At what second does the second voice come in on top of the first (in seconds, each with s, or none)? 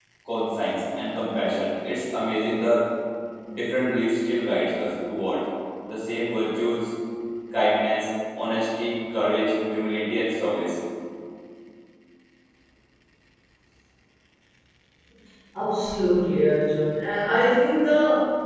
none